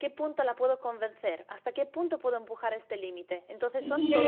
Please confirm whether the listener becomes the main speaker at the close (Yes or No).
Yes